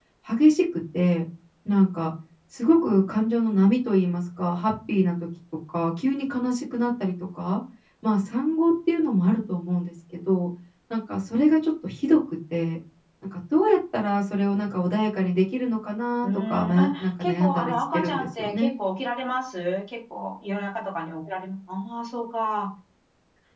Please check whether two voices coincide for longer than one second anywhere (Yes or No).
Yes